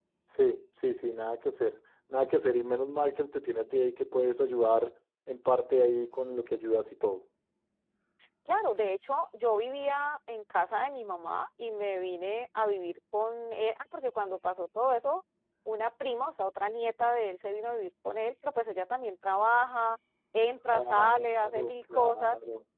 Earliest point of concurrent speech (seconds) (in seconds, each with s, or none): 20.7 s